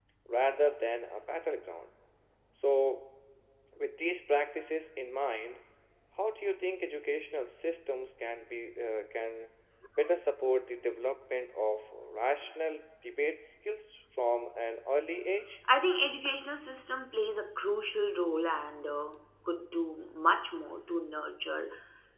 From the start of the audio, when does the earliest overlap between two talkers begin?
none

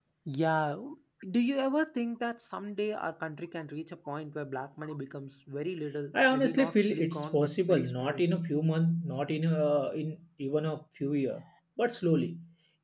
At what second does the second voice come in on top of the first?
6.1 s

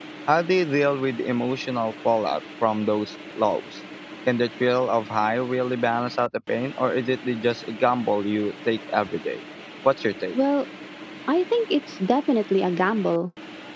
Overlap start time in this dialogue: none

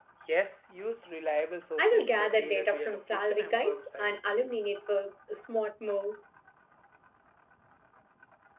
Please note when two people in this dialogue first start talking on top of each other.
1.8 s

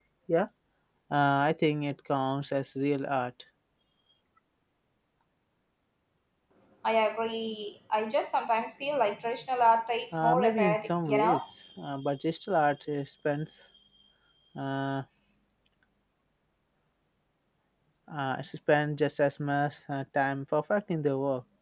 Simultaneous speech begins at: 10.1 s

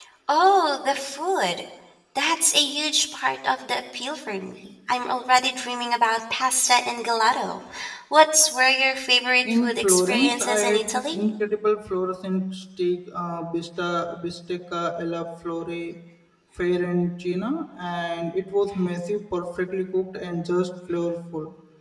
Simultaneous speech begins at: 9.4 s

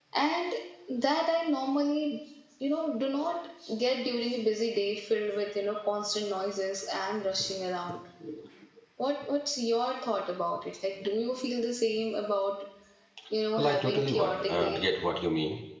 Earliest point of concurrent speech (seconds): 13.6 s

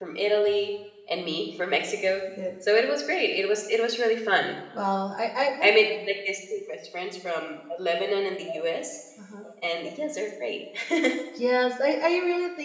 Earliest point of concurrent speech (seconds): none

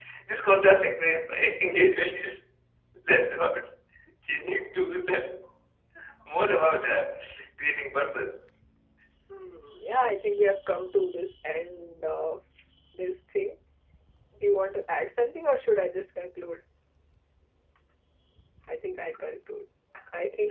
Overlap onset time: none

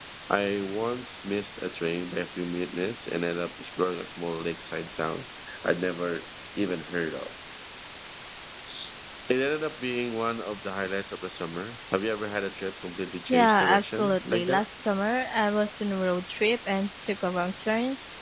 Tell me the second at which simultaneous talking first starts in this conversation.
13.3 s

